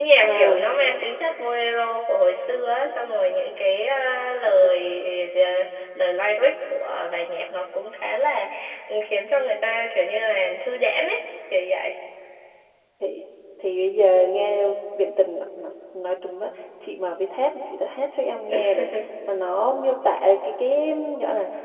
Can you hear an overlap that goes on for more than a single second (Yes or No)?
No